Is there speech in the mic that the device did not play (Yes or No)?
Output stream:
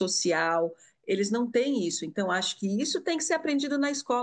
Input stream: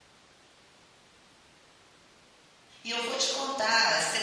Yes